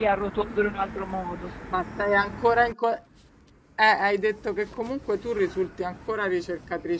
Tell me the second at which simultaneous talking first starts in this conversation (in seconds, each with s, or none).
none